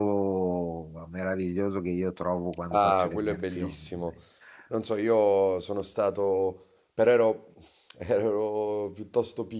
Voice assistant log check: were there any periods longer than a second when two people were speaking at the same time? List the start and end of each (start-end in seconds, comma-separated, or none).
2.7-4.1